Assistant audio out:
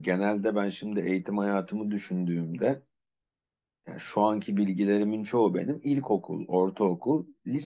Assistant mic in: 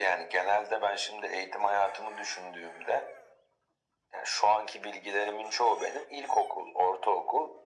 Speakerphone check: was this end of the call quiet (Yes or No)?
Yes